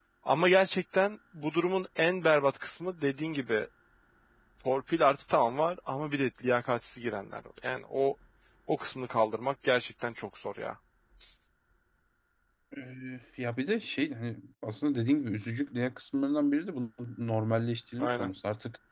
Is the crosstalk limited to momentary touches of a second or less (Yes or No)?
Yes